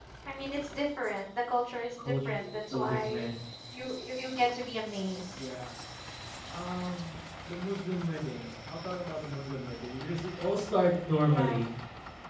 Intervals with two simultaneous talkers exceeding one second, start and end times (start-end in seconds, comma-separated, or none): 2.0-3.3